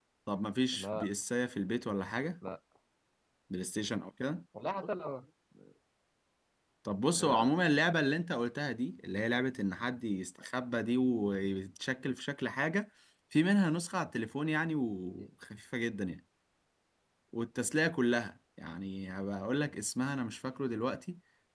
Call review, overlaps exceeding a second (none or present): none